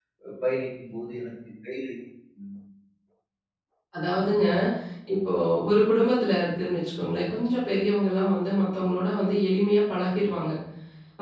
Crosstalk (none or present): none